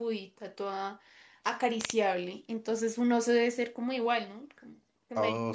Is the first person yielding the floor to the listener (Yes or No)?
Yes